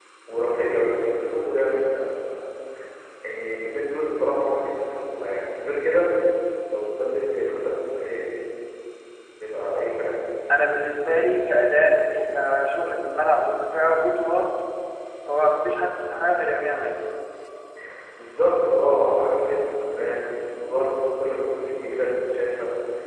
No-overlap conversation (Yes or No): Yes